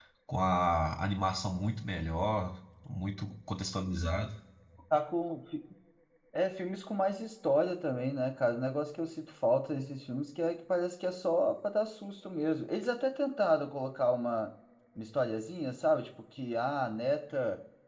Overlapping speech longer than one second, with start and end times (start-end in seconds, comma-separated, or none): none